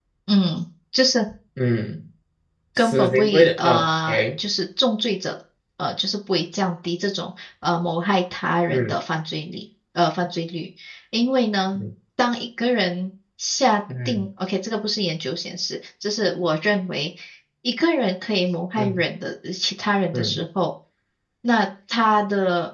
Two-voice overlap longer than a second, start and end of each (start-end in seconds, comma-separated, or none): 2.8-4.2